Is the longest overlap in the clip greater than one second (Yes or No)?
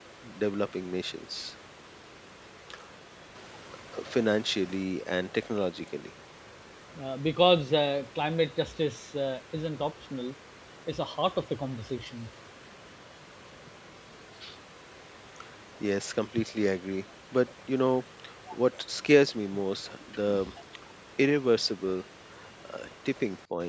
No